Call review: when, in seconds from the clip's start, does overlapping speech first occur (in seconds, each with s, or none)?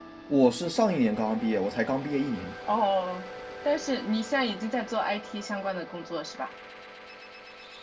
none